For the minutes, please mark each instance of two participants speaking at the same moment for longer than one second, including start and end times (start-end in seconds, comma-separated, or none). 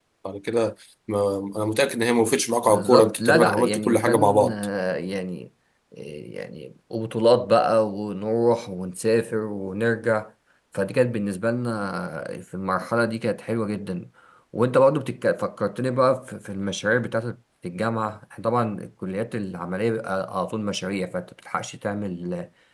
2.7-4.5